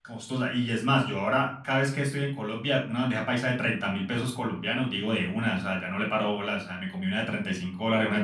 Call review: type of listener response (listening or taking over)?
taking over